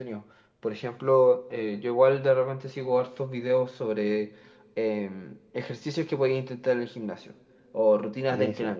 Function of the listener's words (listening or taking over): listening